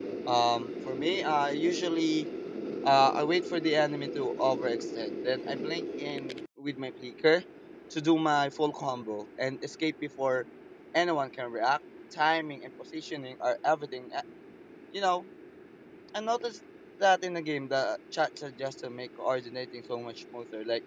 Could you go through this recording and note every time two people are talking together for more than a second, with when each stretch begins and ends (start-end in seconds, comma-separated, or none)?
none